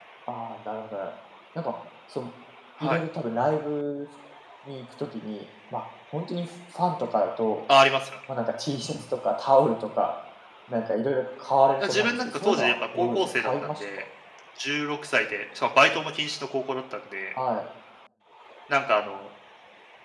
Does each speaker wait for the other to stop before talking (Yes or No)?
No